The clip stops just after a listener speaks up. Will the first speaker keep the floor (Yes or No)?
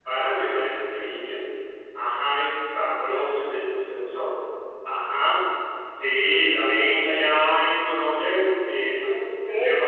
Yes